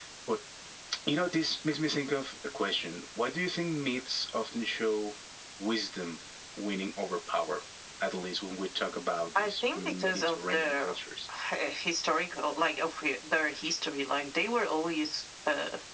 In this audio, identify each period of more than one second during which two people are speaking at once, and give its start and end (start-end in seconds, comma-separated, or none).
9.4-10.9